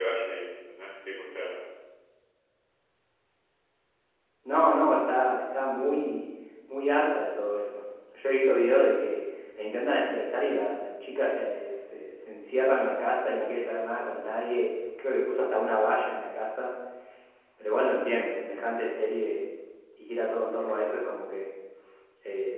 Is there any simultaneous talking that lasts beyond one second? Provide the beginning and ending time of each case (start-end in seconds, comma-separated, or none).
none